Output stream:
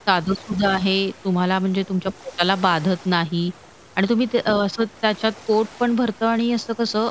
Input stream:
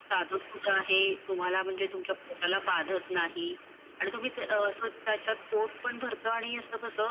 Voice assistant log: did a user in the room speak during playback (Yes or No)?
No